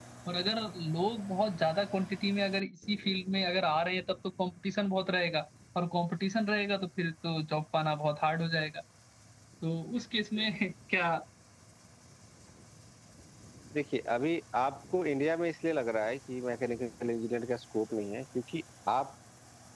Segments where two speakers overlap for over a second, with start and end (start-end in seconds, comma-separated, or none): none